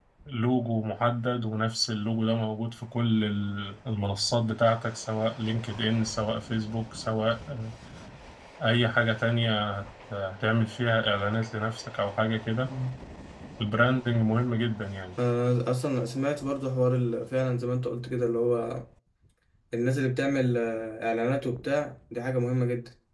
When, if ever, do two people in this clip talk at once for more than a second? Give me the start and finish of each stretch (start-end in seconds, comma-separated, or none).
none